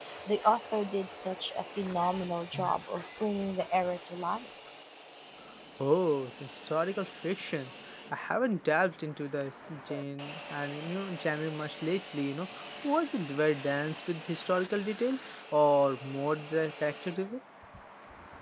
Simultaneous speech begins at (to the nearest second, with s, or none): none